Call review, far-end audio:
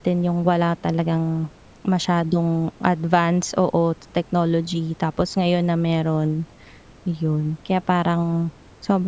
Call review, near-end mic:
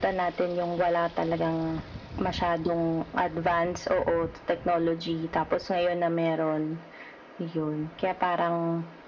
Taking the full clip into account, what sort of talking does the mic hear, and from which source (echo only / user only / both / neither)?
echo only